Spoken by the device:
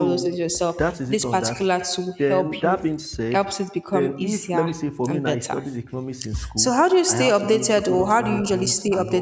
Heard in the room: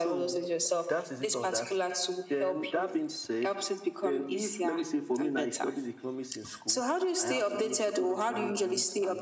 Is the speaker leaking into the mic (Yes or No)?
Yes